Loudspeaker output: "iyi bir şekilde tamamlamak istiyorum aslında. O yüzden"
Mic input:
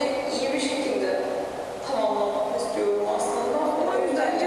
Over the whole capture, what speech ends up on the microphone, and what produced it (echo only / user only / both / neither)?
both